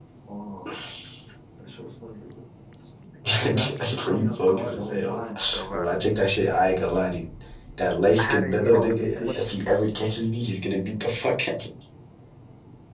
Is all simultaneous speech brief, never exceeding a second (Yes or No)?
No